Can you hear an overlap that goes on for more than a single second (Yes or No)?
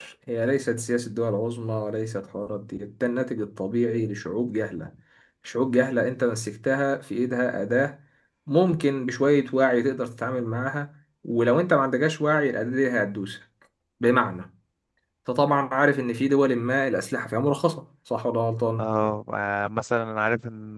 No